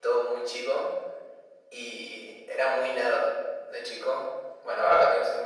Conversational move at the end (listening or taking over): taking over